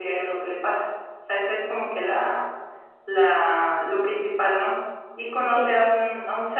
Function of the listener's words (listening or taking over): listening